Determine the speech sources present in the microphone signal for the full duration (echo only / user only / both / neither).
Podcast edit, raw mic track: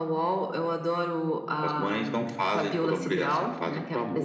echo only